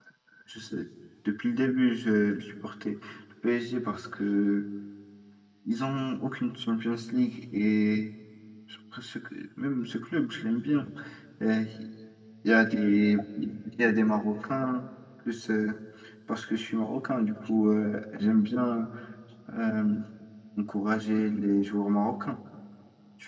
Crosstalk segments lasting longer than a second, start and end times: none

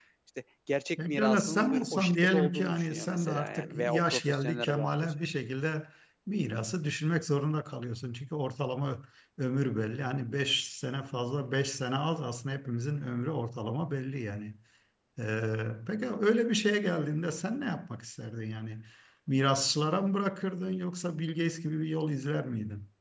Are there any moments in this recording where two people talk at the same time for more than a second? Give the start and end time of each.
1.1-5.1

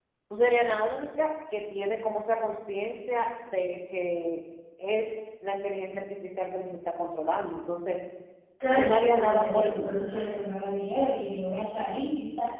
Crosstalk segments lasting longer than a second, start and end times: 8.8-10.0

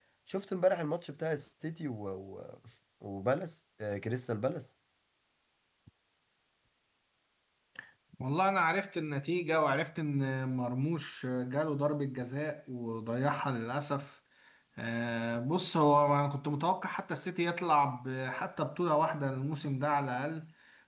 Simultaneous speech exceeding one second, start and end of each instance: none

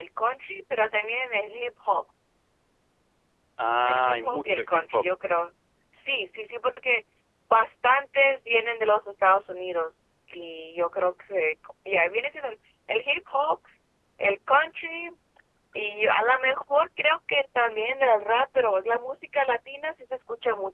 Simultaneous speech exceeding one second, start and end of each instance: 3.9-5.0

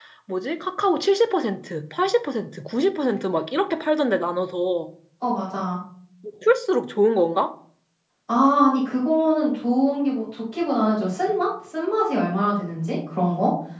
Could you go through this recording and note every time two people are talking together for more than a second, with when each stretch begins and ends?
none

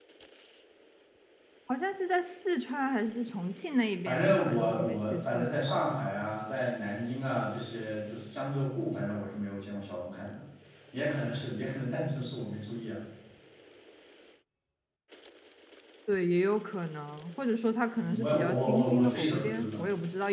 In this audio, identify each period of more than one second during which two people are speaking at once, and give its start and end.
4.0-5.8, 18.0-19.8

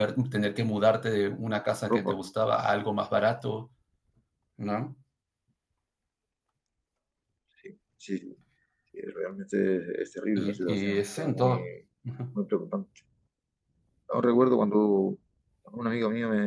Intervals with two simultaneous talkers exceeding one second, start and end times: 10.4-11.7

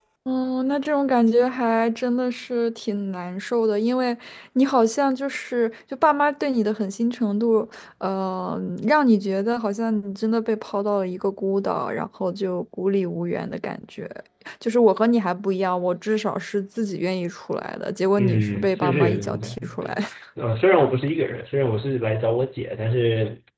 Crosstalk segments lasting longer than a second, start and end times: 18.2-19.9

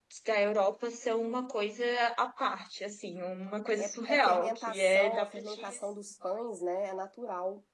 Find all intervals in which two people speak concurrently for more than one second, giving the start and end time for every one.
3.8-5.6

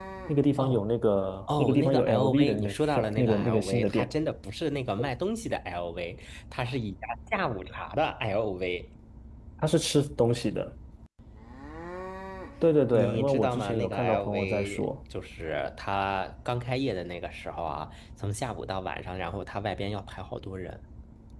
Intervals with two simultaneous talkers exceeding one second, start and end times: 1.6-4.1, 12.9-14.8

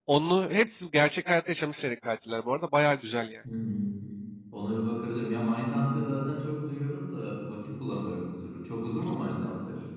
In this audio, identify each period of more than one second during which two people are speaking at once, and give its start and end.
none

